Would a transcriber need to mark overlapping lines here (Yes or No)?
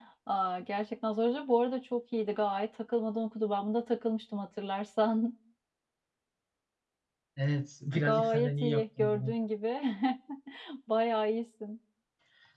Yes